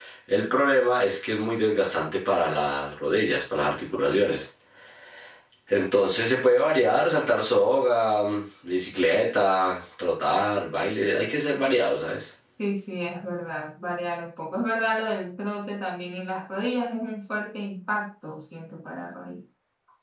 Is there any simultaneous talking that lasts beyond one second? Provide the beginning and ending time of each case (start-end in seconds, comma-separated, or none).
none